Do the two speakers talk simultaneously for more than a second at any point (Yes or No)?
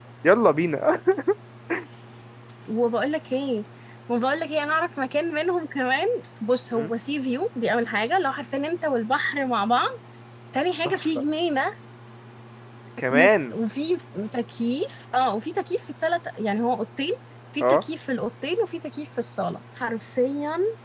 No